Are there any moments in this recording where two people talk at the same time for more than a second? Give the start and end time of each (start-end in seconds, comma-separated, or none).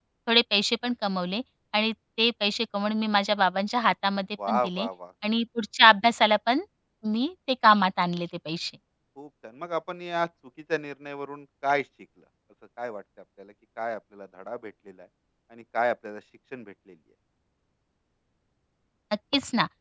none